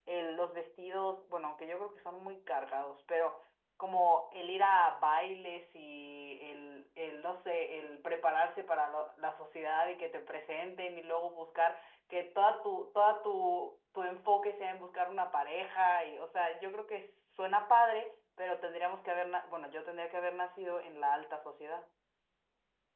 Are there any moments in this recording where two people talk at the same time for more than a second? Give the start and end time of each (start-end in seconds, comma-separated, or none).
none